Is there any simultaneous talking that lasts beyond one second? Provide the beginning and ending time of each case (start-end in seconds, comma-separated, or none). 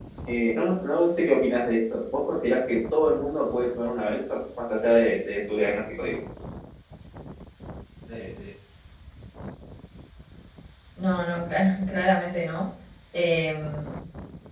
none